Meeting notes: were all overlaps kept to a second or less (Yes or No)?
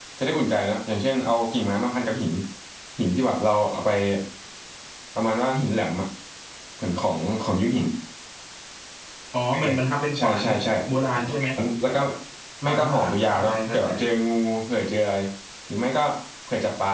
No